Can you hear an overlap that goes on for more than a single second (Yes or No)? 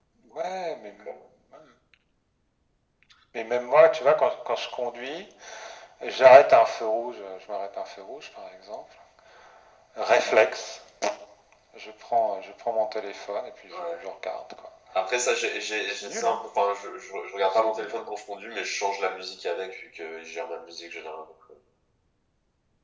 No